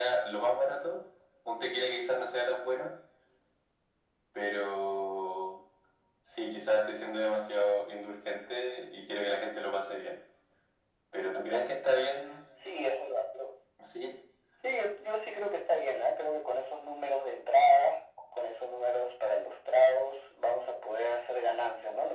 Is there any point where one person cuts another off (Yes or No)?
No